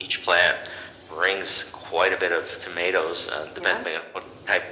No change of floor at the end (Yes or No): Yes